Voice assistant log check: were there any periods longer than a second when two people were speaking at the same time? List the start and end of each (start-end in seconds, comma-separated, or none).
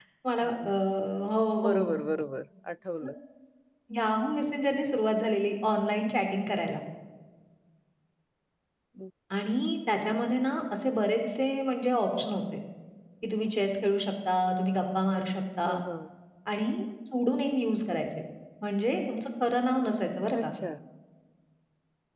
none